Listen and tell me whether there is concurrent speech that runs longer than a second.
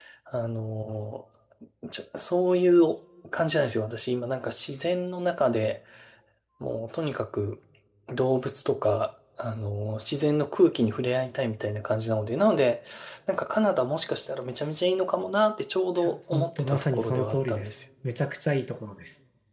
Yes, from 16.0 s

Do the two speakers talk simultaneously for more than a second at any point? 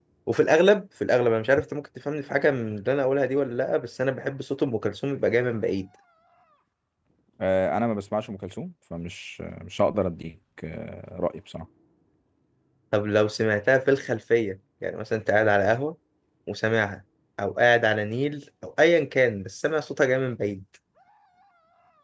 No

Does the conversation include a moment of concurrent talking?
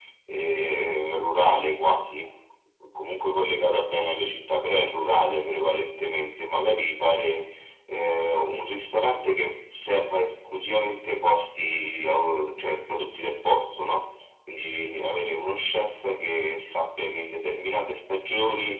No

